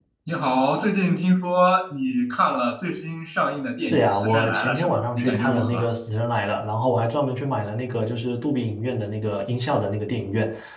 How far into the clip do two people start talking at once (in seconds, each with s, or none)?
3.9 s